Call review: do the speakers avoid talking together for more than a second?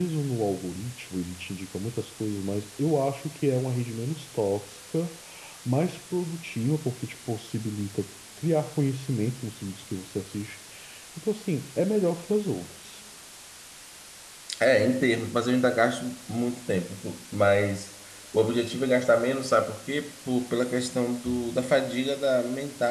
Yes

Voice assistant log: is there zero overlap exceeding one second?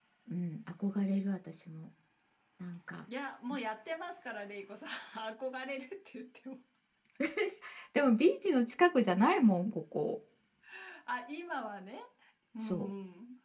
Yes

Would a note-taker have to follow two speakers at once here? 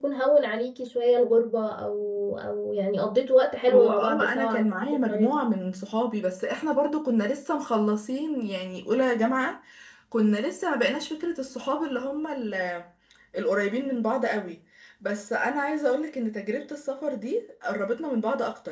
Yes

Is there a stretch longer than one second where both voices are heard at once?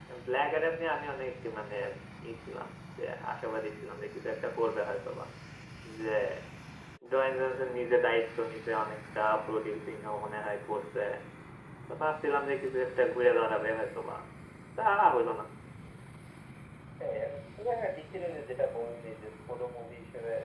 No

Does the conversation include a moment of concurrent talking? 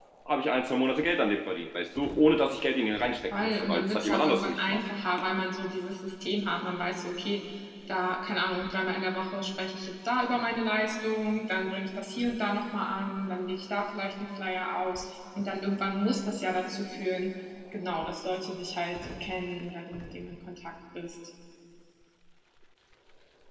Yes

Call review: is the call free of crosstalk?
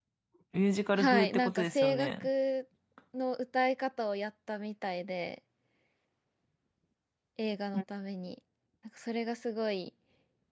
No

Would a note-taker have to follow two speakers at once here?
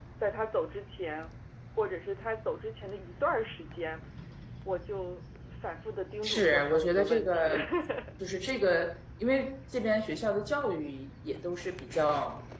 Yes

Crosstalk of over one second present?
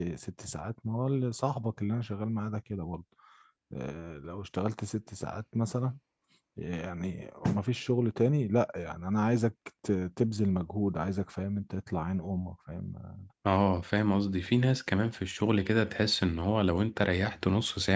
No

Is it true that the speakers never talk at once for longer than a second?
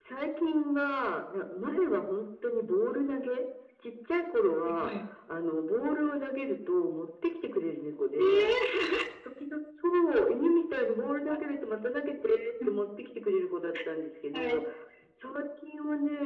Yes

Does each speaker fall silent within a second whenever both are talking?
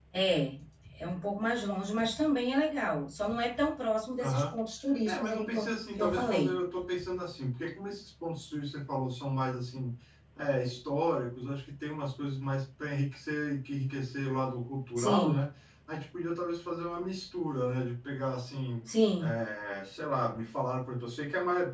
No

